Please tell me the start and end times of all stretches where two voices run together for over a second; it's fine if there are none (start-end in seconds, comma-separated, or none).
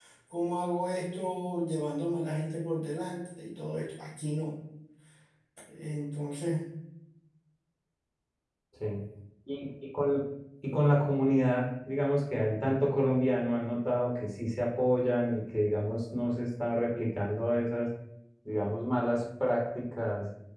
none